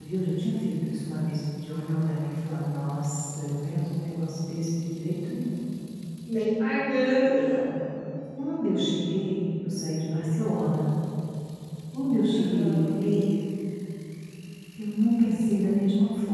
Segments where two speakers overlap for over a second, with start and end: none

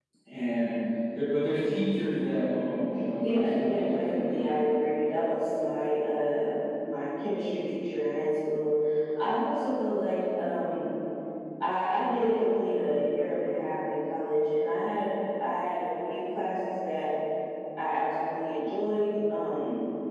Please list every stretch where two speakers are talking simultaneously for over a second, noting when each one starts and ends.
3.2-4.5

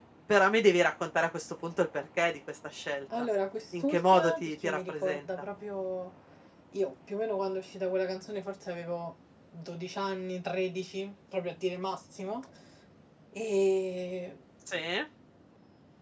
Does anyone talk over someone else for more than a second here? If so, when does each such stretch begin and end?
3.8-5.2

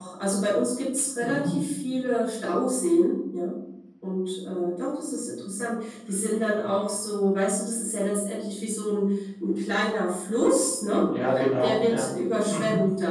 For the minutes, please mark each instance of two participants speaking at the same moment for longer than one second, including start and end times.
none

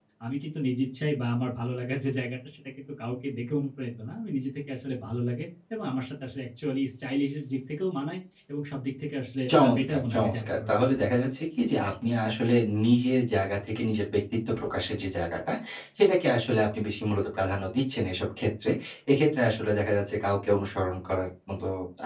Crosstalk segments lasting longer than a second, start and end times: 9.5-10.9

